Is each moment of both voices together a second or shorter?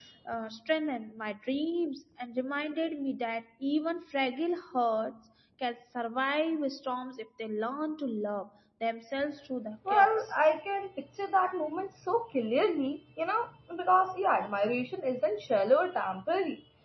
Yes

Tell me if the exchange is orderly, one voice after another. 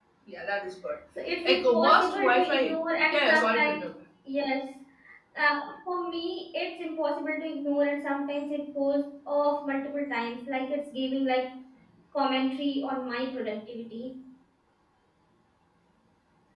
No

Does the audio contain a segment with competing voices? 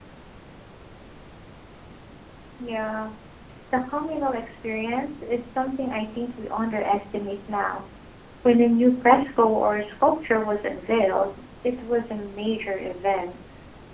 No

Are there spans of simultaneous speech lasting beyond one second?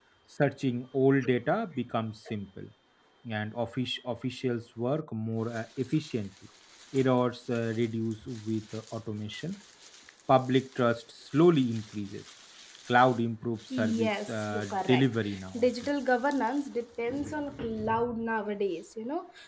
Yes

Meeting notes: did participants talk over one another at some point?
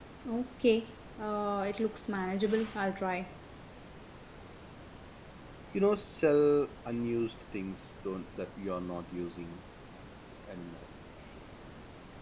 No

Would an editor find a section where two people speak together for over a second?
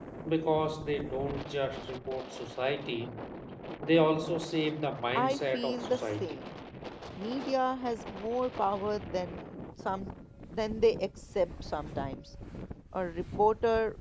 Yes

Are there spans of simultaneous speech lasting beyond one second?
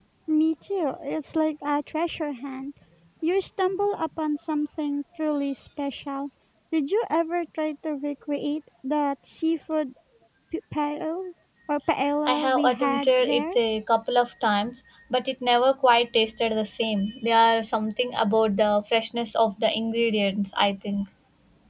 Yes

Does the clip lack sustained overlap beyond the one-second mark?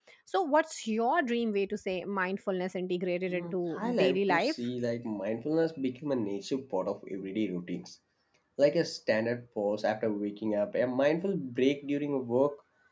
No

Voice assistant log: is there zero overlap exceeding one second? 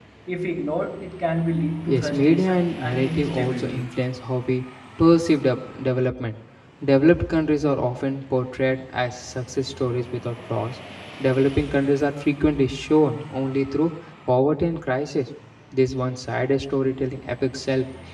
No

